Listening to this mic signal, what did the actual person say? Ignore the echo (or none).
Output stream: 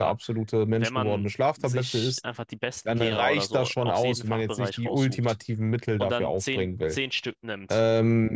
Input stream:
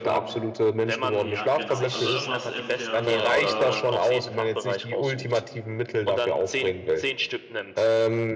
Ja, genau. Also irgendwas im Schema von äh,